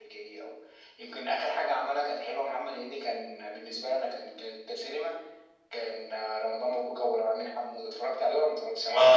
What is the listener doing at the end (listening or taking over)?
taking over